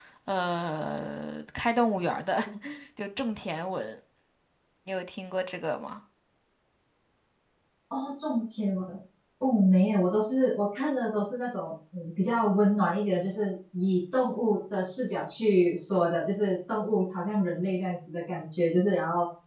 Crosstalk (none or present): none